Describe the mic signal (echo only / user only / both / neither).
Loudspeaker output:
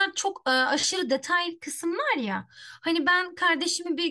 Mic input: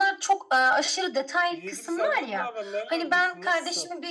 both